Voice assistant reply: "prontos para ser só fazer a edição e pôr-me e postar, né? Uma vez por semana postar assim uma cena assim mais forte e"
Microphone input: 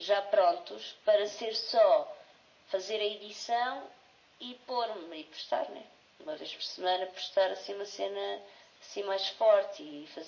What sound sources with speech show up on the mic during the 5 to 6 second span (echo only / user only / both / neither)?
echo only